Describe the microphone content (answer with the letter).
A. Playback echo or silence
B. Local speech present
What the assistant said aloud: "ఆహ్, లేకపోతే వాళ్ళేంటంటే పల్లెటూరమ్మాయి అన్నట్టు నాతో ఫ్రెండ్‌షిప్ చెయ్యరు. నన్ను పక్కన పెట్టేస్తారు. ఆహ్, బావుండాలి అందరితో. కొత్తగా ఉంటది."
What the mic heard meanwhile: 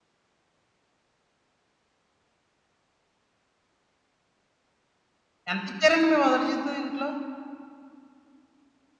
B